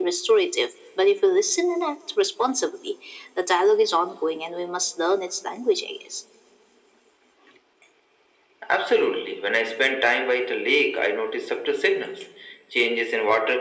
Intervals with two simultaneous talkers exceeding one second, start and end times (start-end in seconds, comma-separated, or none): none